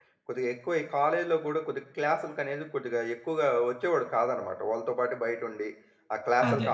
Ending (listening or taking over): listening